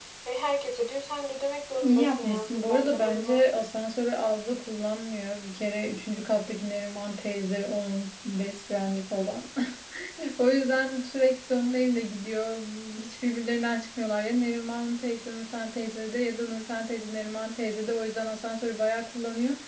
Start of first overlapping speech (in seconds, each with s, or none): 1.8 s